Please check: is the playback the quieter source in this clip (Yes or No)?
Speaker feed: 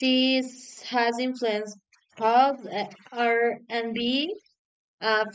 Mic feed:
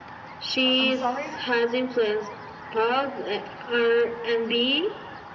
No